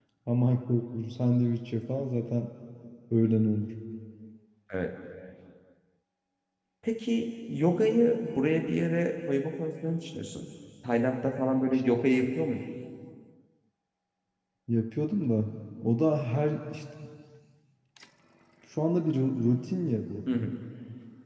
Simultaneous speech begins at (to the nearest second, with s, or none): none